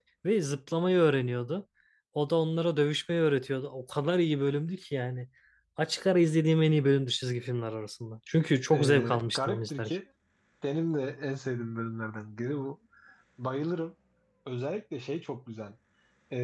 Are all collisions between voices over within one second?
No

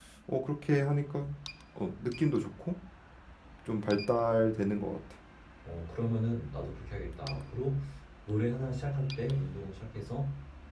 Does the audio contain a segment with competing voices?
No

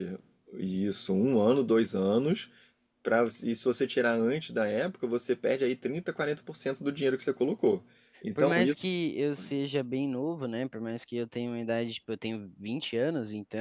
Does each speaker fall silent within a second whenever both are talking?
Yes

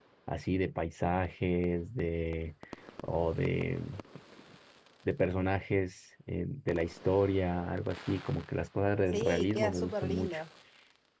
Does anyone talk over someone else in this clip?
Yes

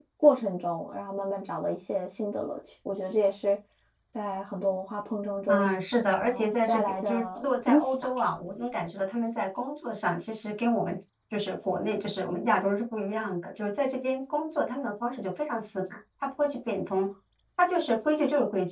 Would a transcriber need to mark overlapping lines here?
Yes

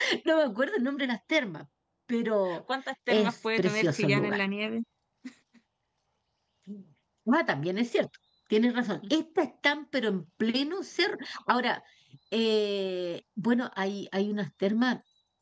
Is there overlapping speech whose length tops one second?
Yes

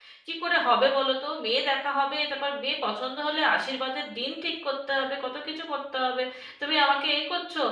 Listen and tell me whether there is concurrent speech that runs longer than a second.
No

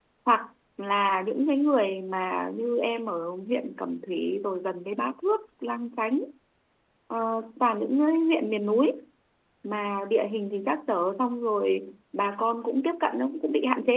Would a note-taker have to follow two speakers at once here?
No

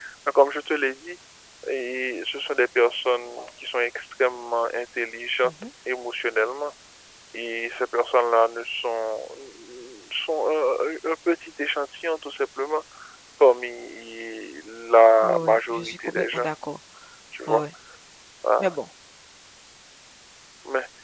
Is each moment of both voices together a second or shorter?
No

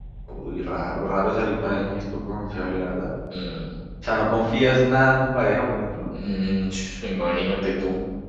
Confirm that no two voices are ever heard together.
Yes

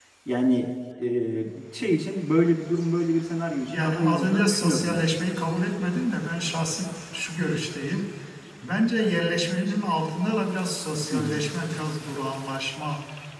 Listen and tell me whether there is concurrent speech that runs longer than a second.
Yes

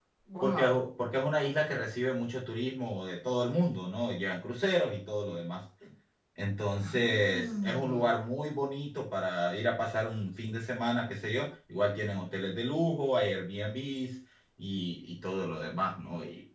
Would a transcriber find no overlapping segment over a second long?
No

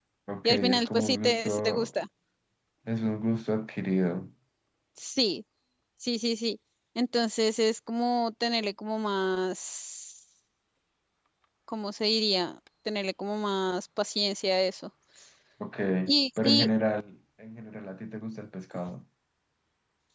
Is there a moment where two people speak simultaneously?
Yes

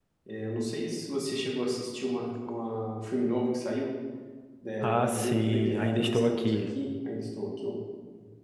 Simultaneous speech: Yes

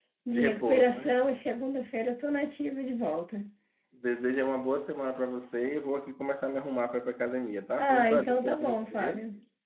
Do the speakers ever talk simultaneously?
Yes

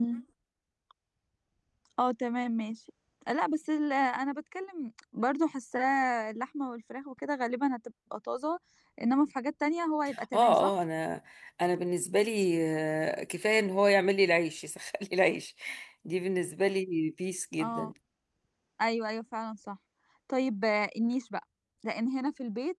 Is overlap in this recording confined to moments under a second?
Yes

